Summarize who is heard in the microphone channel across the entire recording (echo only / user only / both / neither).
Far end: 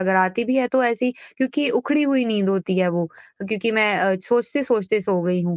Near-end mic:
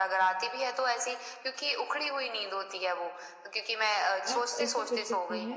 both